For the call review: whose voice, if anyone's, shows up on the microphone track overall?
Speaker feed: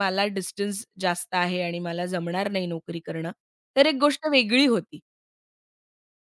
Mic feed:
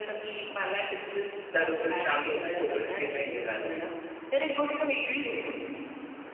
both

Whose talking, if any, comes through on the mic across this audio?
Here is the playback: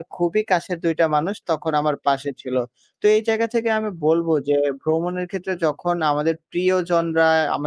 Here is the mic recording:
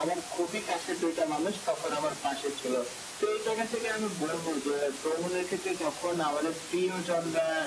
echo only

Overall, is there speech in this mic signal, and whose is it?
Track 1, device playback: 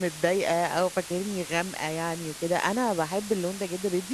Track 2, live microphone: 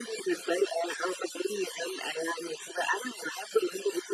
echo only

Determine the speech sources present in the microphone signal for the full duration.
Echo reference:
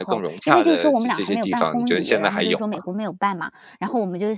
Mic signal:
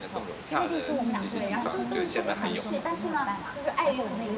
both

